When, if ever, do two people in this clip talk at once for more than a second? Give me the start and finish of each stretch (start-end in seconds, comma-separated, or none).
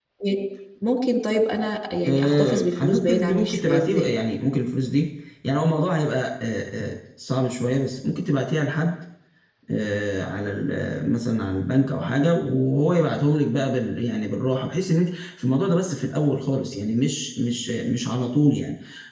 2.1-4.1